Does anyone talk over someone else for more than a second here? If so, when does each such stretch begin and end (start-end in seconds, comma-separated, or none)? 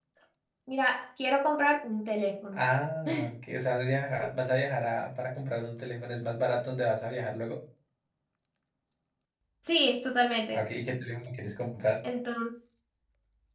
none